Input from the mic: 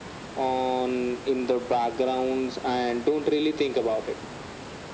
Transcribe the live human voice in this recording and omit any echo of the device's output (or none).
none